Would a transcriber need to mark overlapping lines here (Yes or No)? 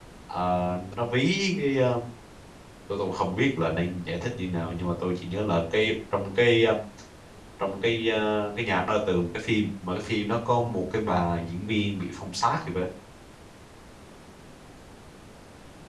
No